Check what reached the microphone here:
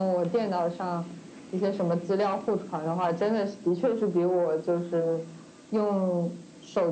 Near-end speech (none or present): none